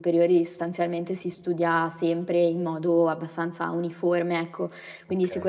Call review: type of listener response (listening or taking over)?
listening